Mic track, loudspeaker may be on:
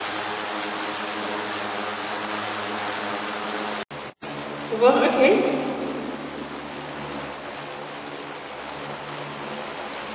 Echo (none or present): none